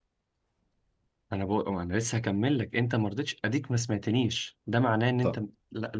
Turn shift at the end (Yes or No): No